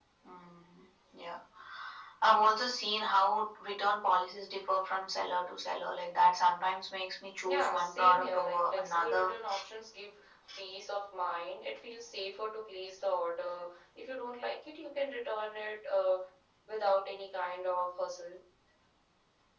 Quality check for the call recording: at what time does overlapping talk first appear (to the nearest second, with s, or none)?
7 s